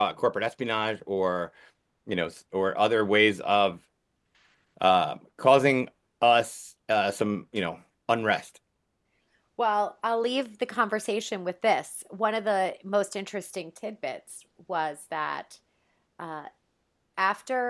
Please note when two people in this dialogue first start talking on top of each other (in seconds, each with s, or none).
none